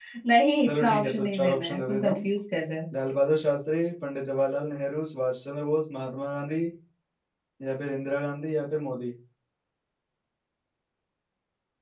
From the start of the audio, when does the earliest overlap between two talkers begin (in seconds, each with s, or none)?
0.6 s